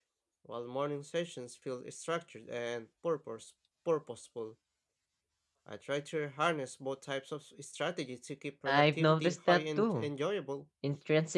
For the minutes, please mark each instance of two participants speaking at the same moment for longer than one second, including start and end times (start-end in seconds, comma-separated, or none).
8.6-10.1